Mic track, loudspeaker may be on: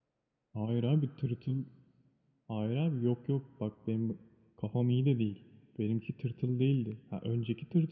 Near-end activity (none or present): none